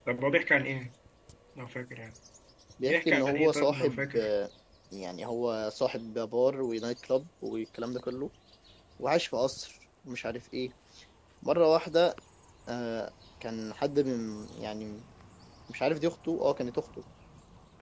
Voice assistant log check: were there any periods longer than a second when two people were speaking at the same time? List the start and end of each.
2.8-4.3

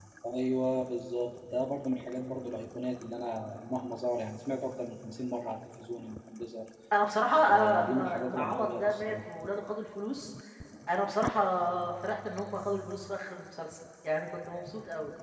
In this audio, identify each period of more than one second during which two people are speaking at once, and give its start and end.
7.5-9.2

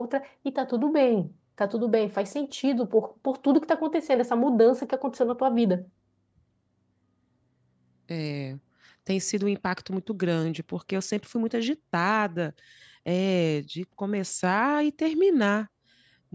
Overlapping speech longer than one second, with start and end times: none

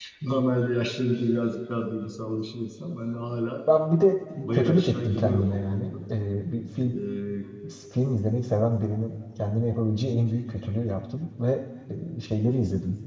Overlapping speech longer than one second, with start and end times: 4.4-5.9

